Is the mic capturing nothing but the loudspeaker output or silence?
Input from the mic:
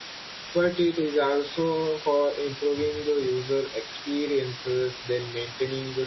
No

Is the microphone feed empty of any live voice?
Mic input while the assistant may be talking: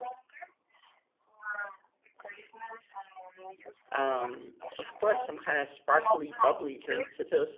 No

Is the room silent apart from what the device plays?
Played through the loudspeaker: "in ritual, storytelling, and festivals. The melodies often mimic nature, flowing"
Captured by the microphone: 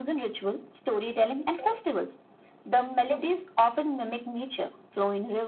Yes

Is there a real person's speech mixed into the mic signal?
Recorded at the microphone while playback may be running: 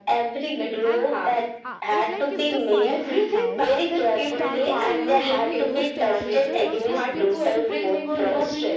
Yes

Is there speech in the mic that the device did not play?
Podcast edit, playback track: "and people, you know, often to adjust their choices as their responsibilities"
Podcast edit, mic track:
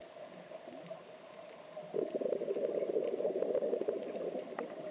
No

